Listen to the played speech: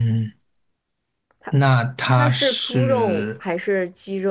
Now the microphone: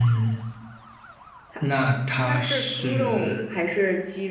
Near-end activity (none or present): none